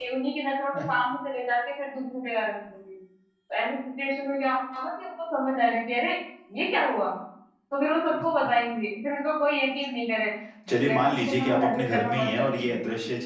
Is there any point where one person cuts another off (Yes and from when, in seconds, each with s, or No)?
Yes, from 10.7 s